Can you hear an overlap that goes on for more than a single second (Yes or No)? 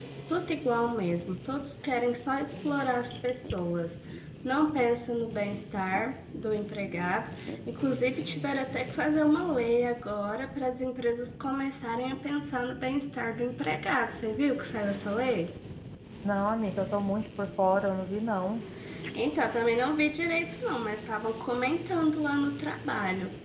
No